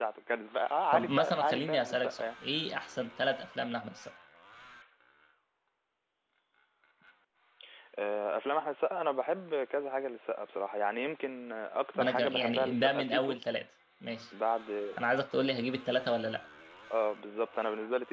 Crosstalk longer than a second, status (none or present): present